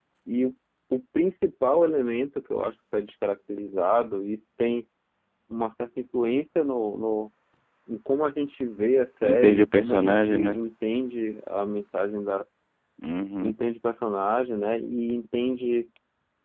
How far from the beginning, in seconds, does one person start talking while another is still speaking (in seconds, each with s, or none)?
9.2 s